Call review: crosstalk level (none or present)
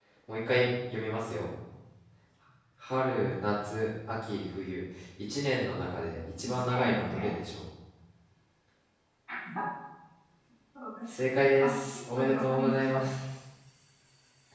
present